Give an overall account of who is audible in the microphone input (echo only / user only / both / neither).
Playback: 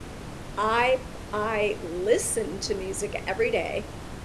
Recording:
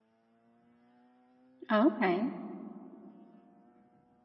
user only